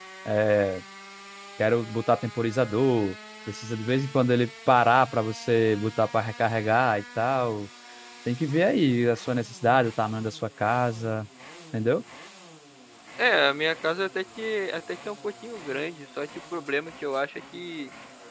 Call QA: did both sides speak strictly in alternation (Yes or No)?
Yes